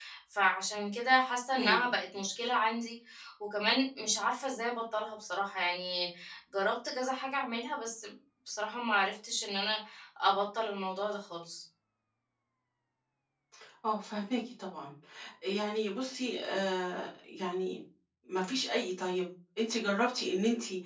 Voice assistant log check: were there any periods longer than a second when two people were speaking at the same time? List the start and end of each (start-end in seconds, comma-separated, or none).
none